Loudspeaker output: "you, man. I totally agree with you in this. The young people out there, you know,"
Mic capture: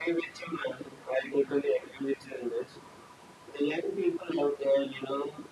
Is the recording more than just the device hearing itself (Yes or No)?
No